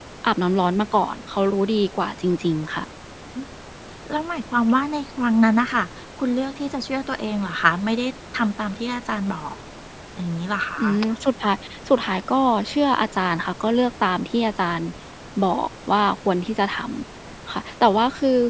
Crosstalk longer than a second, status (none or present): none